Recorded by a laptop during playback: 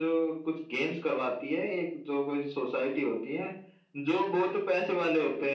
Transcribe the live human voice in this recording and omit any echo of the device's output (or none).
none